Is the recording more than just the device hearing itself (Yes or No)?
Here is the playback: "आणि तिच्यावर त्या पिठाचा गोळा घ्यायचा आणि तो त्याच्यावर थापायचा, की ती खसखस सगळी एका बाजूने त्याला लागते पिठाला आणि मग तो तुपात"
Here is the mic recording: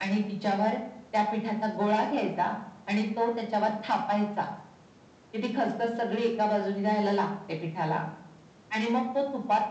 No